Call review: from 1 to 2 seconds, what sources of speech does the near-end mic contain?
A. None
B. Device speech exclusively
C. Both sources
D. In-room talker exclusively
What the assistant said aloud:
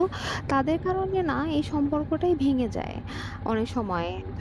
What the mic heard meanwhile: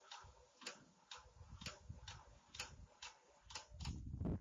A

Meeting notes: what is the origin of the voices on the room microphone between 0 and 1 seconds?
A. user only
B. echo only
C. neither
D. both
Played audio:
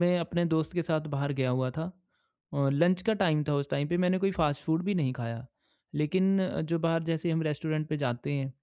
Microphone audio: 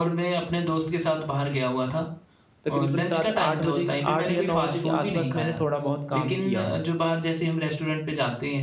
B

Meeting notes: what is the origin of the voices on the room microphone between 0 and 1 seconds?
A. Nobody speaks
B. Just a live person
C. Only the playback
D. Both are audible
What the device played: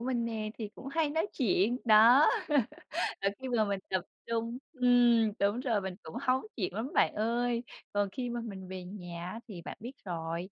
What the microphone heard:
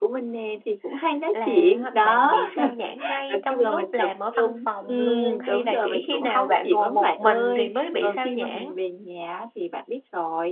C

